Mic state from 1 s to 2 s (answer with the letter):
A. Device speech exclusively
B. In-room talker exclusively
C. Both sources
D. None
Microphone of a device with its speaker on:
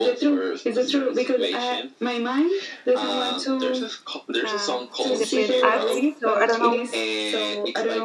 A